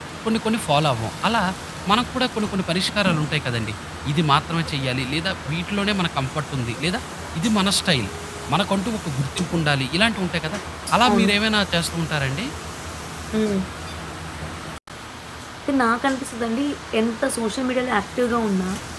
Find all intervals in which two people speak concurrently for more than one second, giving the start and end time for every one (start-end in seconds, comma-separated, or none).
none